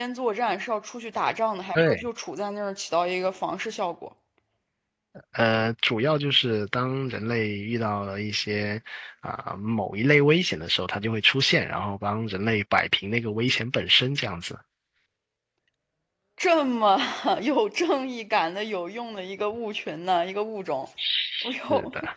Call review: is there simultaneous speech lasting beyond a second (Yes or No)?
No